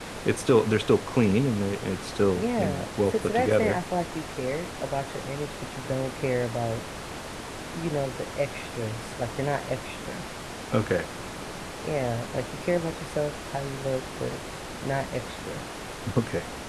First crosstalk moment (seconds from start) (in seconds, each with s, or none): 2.4 s